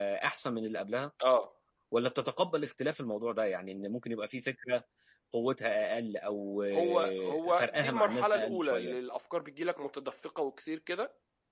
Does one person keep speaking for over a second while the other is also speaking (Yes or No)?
Yes